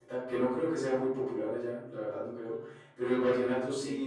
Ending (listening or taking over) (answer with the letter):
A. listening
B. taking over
A